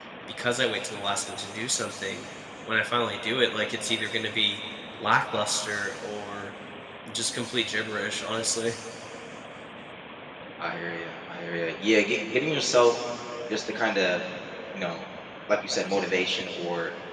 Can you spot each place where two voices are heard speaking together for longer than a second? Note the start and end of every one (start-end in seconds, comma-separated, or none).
none